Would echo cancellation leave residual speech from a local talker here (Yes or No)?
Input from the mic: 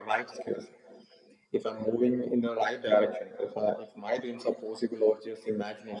No